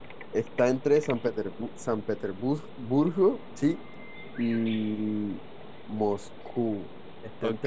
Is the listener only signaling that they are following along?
No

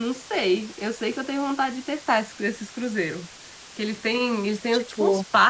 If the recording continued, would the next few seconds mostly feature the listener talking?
No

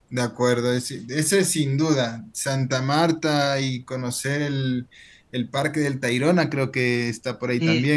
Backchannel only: No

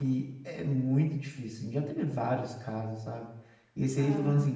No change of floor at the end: Yes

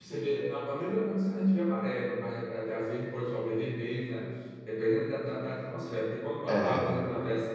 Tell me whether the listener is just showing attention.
Yes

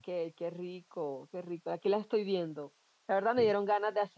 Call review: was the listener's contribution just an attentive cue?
Yes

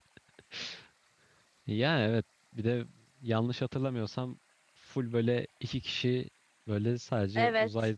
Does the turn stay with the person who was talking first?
Yes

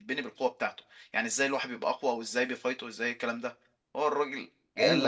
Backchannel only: No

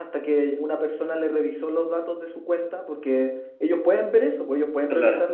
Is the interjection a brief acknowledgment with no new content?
Yes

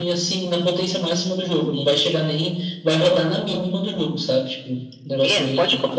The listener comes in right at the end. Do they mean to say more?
Yes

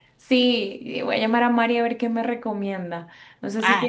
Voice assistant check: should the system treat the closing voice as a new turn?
No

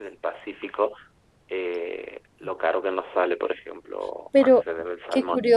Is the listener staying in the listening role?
No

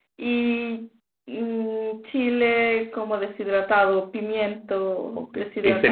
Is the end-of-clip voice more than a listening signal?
Yes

